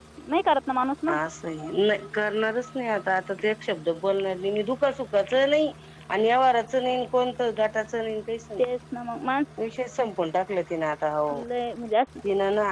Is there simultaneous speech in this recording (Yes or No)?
No